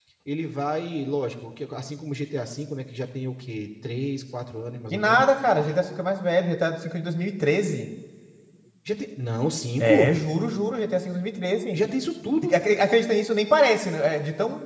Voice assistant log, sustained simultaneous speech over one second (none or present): none